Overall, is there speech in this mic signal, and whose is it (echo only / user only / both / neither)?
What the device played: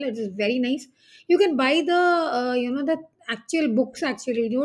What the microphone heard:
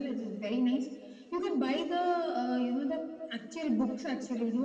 echo only